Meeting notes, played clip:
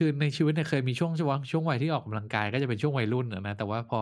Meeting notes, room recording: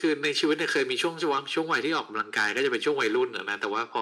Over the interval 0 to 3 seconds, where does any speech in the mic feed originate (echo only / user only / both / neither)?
echo only